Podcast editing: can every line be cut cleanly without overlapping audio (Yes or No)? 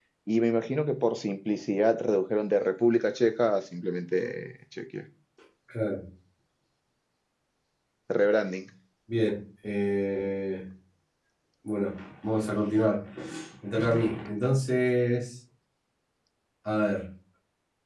Yes